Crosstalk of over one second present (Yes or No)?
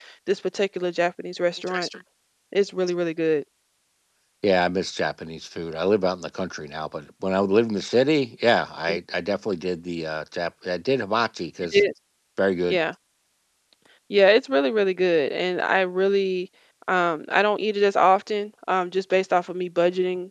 No